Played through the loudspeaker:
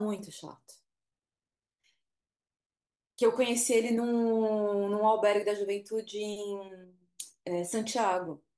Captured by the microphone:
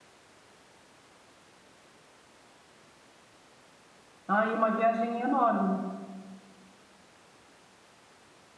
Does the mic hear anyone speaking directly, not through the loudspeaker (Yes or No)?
Yes